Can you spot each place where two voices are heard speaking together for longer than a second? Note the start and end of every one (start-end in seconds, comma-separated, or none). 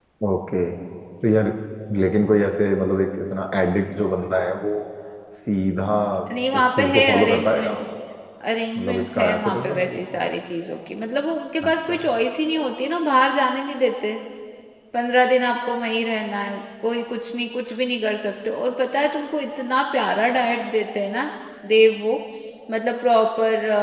6.6-7.8, 8.8-10.0